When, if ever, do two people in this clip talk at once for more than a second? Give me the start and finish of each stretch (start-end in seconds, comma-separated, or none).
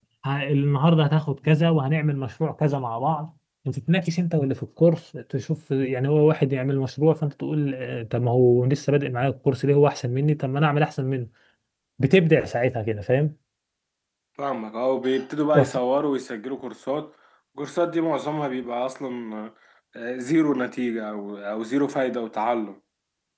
none